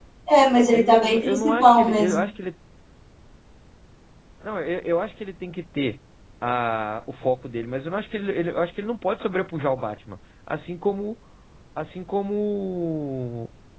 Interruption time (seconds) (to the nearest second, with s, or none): 1 s